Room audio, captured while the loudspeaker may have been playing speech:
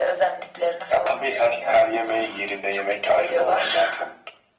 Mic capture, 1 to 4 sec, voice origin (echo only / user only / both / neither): echo only